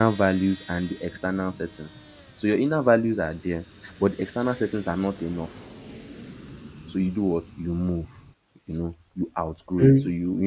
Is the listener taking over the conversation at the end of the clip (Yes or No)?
No